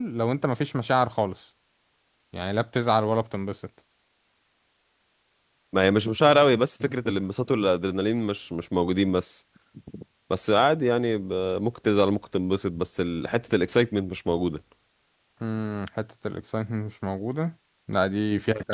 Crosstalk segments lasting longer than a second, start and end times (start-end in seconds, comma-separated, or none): none